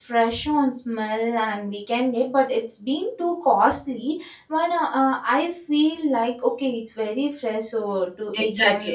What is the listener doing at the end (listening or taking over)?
taking over